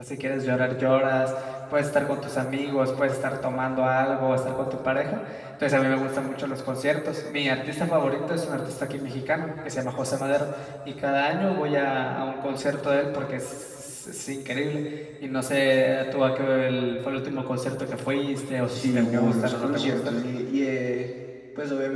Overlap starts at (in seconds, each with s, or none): 18.7 s